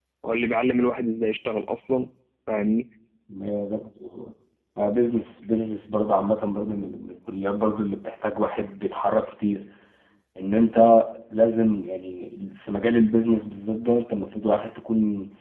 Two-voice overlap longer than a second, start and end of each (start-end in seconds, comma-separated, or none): none